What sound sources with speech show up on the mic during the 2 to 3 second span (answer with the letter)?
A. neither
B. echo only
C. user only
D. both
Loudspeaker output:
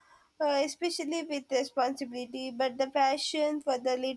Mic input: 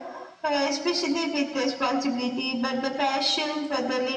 B